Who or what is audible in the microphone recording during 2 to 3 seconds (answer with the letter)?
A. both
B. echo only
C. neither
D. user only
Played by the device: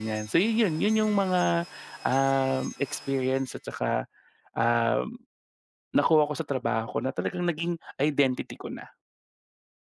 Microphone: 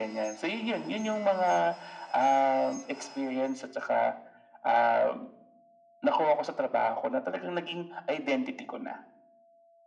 B